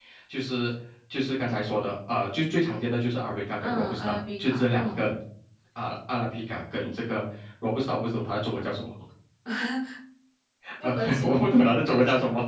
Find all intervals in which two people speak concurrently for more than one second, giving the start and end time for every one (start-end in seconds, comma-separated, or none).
3.6-5.1